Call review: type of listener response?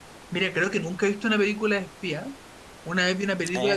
listening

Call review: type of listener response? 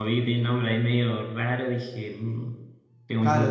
taking over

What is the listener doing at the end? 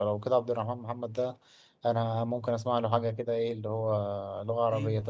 taking over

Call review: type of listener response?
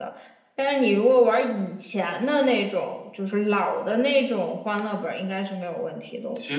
taking over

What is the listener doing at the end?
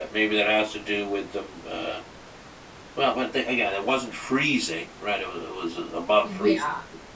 listening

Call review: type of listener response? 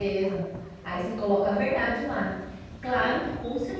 listening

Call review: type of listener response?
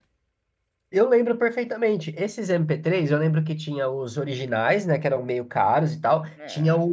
listening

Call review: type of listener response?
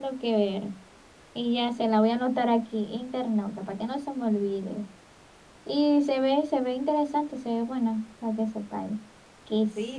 taking over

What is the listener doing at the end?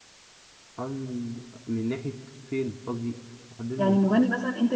taking over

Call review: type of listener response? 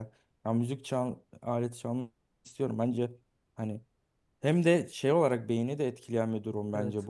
listening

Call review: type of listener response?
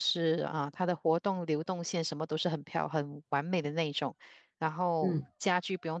listening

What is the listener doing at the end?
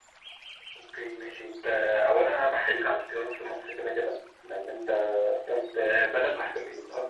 listening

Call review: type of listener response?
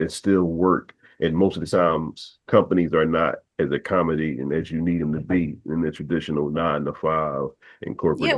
taking over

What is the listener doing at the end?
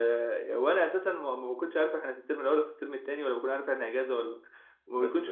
listening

